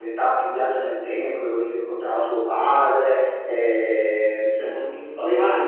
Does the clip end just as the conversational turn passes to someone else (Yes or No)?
Yes